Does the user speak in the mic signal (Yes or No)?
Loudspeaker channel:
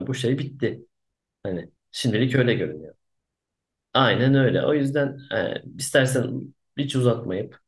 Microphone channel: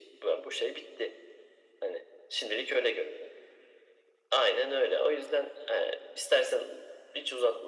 No